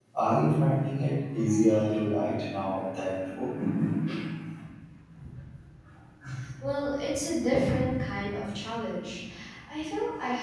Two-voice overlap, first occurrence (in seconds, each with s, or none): none